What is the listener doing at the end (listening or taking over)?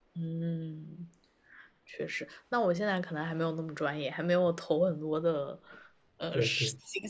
listening